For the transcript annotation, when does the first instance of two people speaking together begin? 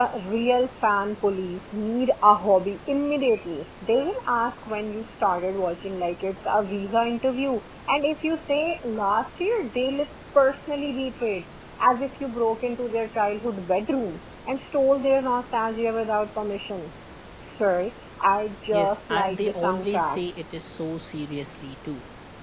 19 s

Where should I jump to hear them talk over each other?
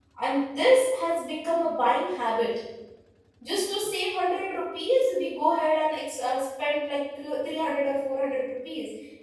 none

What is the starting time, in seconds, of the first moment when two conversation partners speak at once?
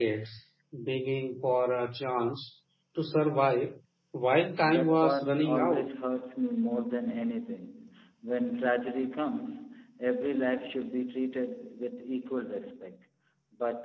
5 s

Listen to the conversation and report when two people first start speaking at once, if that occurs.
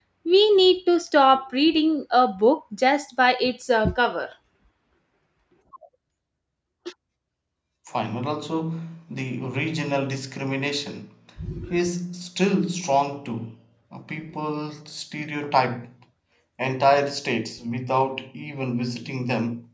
none

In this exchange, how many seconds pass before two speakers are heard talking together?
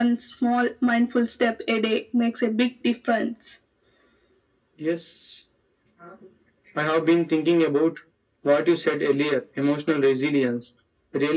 none

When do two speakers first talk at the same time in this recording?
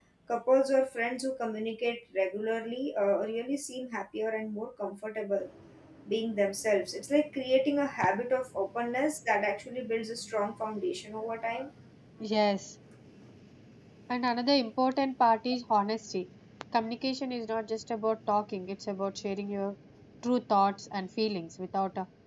none

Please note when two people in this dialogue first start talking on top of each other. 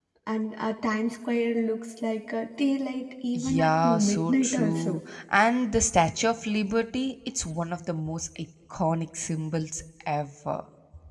3 s

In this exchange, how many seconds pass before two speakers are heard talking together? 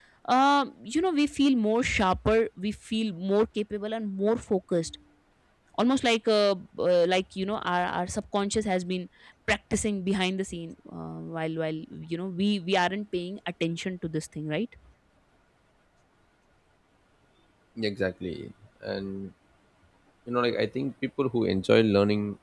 none

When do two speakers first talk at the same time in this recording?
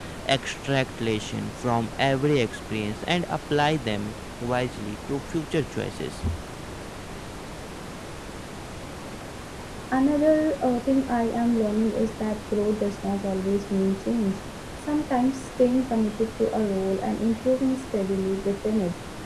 none

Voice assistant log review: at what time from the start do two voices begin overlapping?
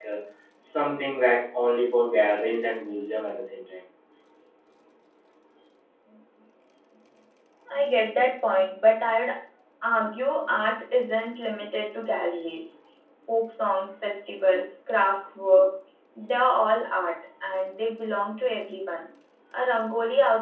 none

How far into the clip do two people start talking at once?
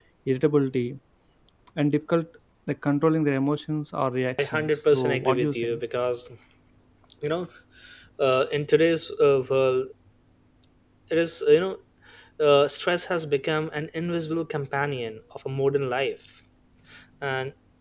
4 s

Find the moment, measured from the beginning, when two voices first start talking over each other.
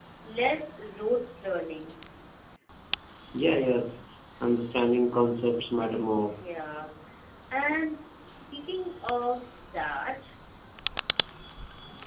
none

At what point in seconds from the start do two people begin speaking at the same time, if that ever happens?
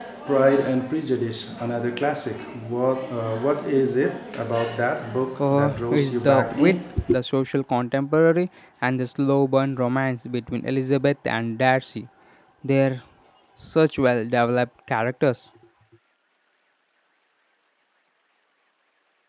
5 s

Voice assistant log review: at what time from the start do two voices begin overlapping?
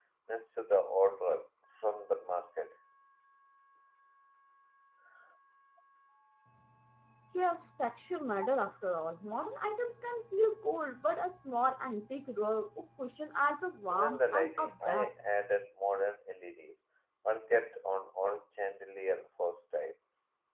14 s

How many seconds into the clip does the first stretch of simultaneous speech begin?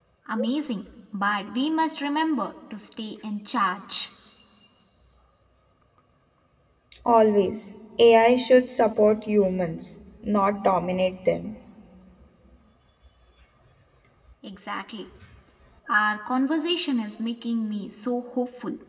none

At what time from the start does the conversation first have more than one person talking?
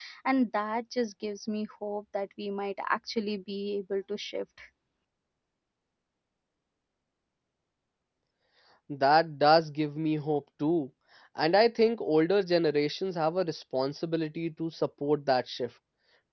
none

